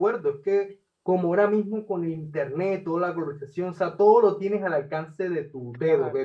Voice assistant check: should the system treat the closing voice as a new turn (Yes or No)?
No